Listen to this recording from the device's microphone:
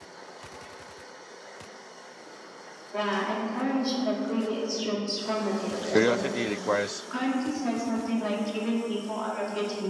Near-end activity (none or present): present